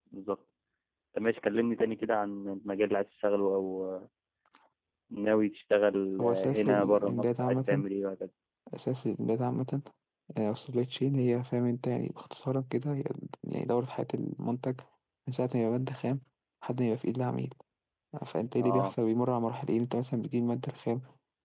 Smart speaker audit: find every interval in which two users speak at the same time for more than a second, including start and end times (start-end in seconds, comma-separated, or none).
6.2-7.8